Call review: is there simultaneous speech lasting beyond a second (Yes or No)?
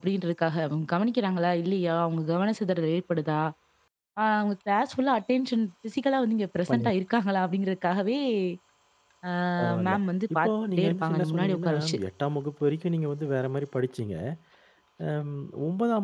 Yes